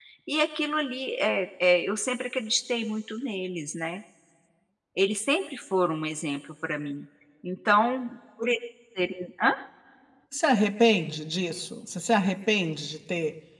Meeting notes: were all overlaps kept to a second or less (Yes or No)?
Yes